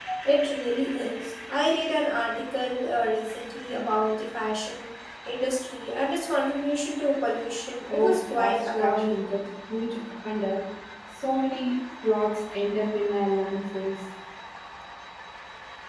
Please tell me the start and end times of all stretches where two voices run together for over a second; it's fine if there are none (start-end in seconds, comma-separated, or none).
7.9-9.2